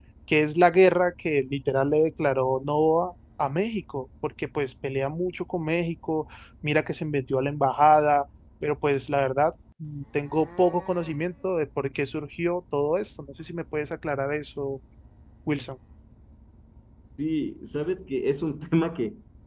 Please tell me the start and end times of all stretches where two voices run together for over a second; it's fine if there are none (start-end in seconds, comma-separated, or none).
none